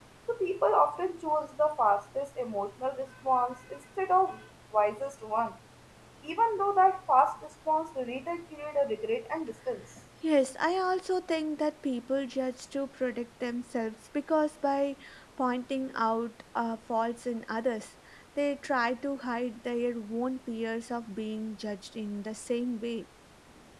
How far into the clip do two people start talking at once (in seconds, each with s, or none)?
none